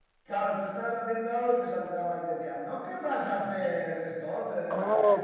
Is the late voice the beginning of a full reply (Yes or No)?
Yes